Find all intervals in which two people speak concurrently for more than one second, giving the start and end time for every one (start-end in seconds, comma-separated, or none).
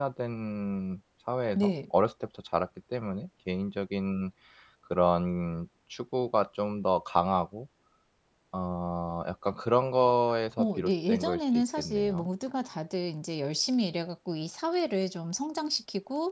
10.6-12.3